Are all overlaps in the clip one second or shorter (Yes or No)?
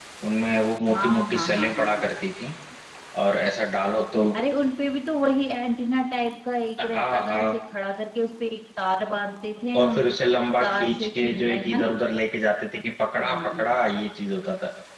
No